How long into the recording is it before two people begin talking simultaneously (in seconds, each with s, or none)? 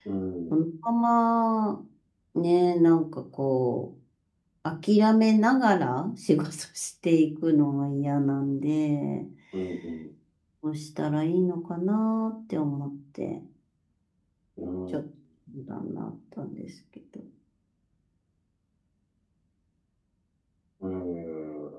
none